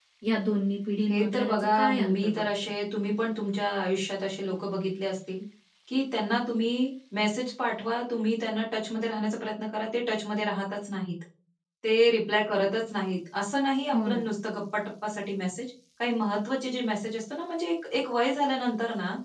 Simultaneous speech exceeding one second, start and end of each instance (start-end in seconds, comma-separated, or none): 1.1-2.5